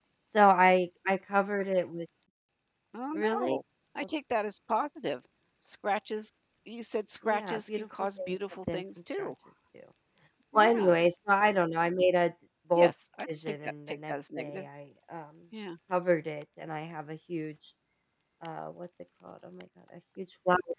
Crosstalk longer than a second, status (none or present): present